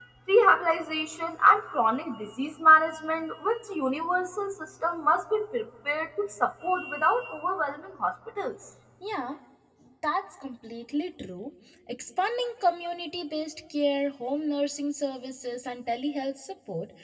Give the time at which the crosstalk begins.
none

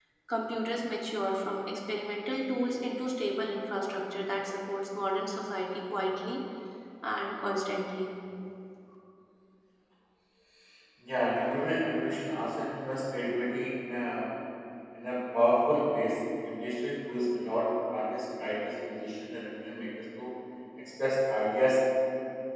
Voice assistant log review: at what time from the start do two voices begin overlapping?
none

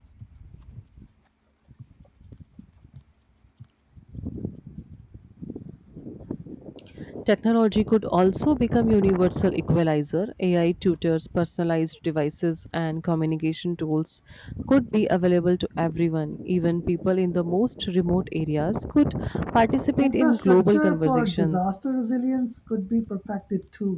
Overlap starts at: 20.0 s

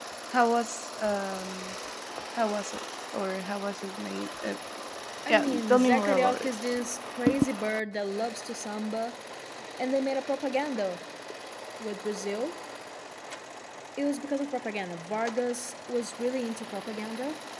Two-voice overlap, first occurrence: 5.3 s

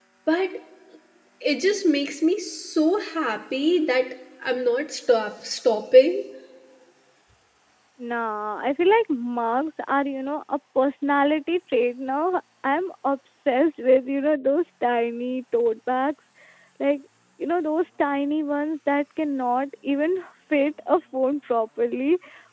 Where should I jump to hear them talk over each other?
none

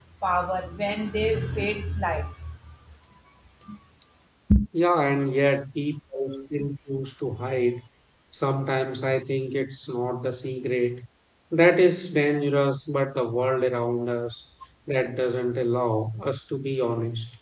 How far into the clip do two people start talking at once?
none

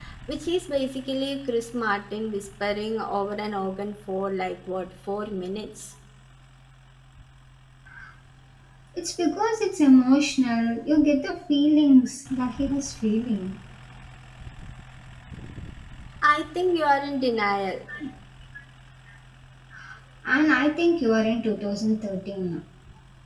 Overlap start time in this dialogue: none

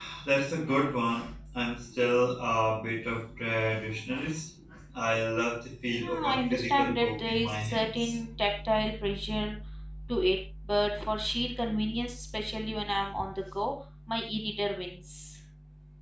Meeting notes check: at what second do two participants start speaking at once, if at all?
6.0 s

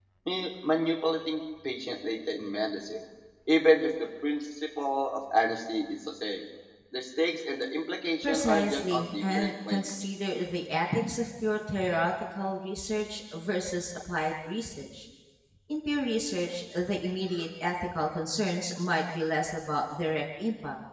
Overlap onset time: 8.2 s

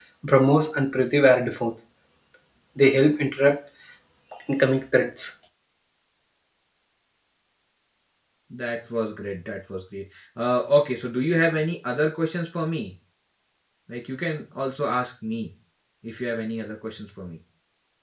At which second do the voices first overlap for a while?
none

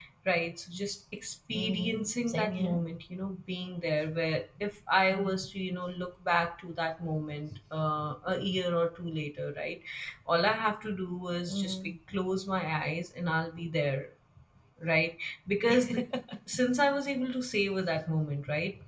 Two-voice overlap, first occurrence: 1.5 s

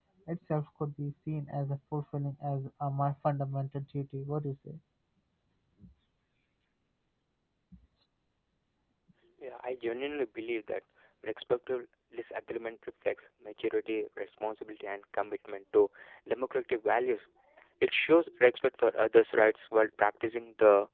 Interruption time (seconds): none

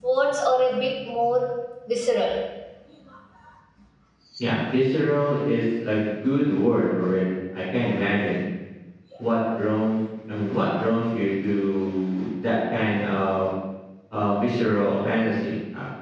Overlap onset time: none

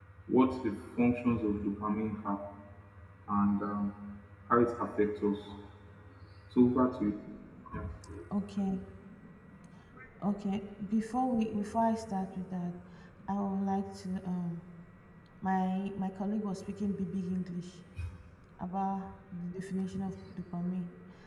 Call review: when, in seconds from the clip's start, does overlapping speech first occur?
none

